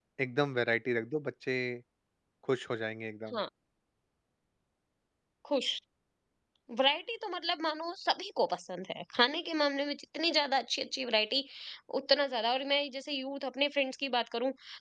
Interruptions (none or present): none